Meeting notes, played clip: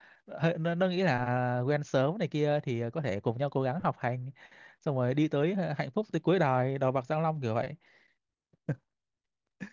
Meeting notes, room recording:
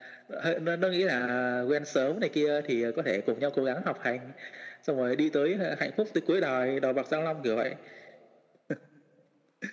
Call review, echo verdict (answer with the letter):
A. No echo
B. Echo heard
B